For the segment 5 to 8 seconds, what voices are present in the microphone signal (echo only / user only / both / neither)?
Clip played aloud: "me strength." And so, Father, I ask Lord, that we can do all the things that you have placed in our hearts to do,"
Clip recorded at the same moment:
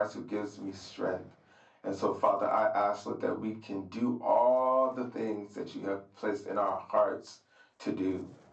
echo only